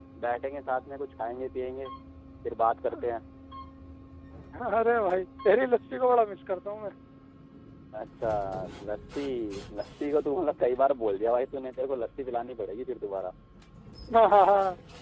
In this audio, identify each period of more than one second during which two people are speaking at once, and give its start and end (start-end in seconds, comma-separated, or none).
none